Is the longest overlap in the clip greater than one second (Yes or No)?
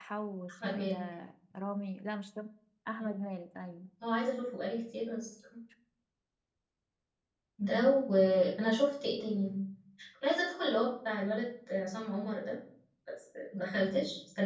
No